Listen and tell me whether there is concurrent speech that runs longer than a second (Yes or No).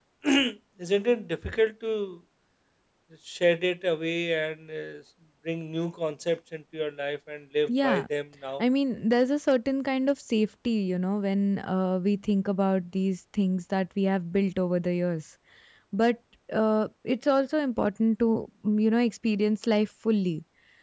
No